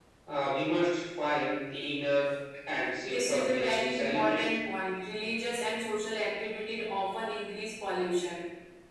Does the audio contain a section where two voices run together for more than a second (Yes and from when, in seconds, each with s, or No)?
Yes, from 3.1 s